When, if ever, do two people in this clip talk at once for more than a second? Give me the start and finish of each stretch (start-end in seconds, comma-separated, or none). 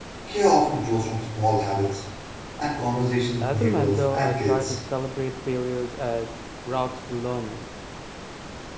3.4-4.8